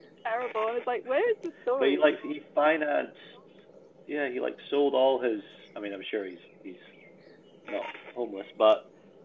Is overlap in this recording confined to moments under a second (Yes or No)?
Yes